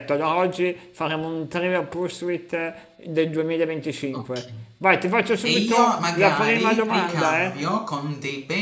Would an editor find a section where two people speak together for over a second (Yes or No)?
Yes